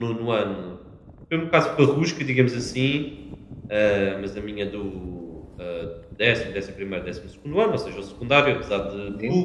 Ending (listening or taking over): listening